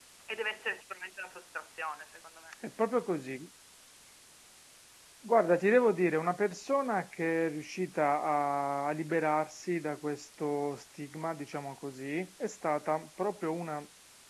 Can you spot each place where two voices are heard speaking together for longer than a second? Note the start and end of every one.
none

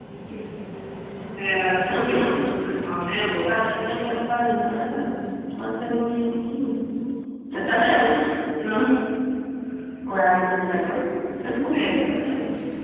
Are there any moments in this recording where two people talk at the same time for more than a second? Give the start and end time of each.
none

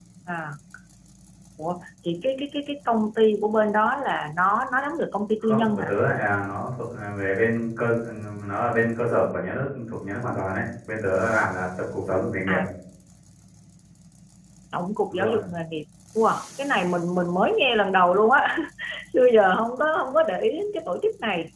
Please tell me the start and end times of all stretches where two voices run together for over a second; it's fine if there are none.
none

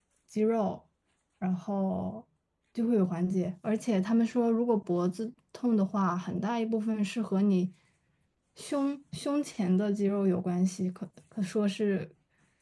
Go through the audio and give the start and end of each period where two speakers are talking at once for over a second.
none

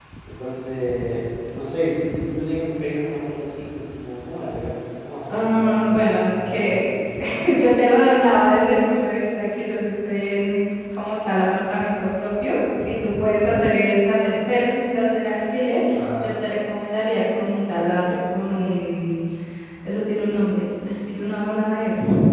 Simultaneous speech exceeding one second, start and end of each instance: 5.3-6.8

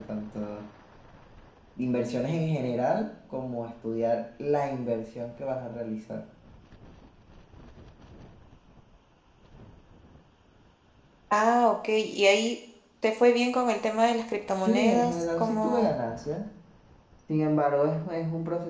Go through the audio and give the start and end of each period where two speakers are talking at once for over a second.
14.6-15.9

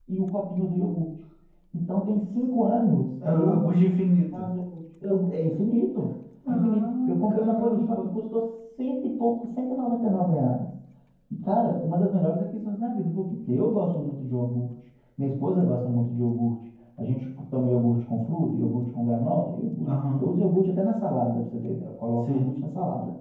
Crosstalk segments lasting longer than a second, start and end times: 6.5-8.1

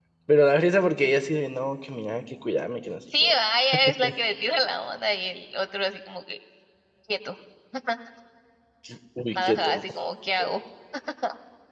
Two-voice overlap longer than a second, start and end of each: none

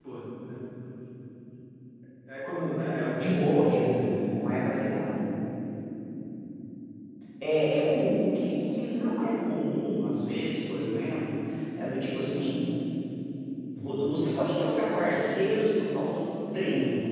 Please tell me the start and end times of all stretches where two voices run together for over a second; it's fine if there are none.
3.2-4.4

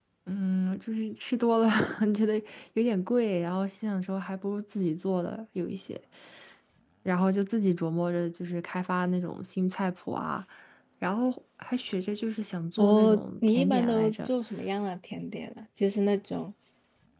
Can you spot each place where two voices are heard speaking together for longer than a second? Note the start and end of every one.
12.8-14.3

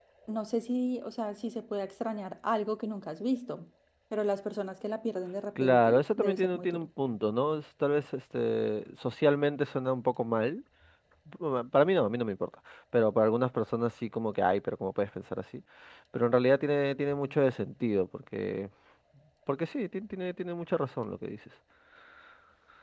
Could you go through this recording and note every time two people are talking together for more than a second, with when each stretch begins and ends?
5.6-6.9

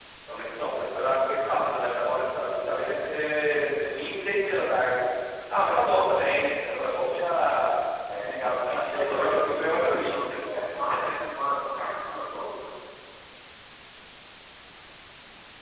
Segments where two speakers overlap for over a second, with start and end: 8.4-10.1

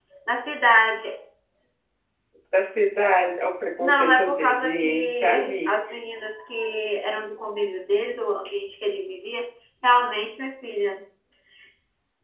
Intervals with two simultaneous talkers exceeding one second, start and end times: 3.8-5.8

